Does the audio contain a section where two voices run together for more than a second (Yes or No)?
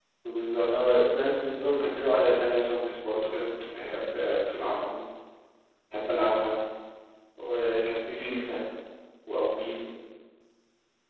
No